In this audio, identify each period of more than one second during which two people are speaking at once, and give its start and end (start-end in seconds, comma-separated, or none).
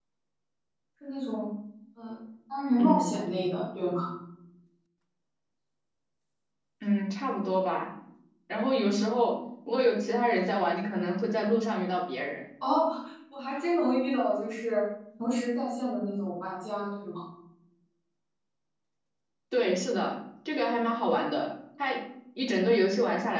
none